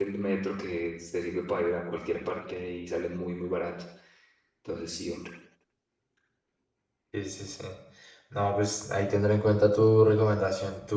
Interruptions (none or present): none